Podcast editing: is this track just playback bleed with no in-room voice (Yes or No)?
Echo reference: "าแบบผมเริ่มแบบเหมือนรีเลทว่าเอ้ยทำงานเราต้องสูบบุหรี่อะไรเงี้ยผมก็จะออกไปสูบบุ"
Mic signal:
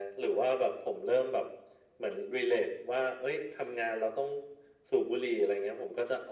Yes